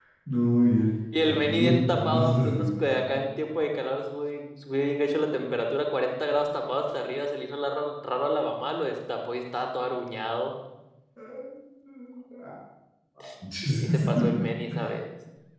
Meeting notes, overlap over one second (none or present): present